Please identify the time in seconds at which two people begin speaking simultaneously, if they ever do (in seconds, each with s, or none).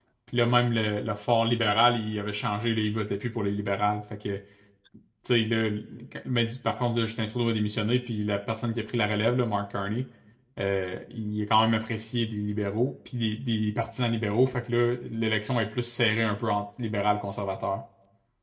none